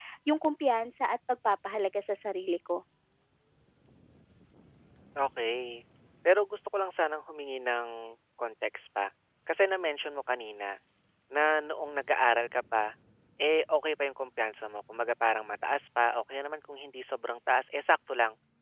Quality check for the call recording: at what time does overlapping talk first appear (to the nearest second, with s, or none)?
none